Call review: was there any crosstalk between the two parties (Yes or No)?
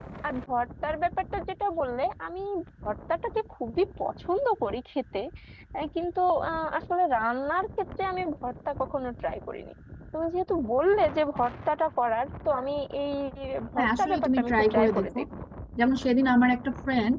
Yes